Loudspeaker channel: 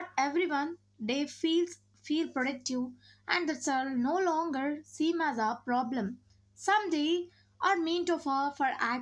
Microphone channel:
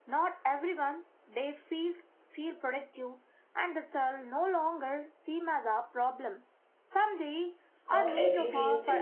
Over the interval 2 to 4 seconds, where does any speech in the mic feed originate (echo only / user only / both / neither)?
echo only